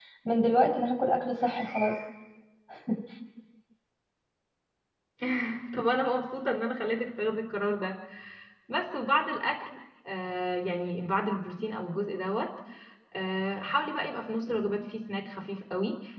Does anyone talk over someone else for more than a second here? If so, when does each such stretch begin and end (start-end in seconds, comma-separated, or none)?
none